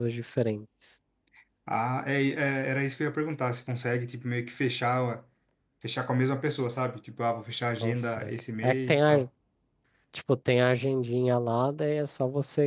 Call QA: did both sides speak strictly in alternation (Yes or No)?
No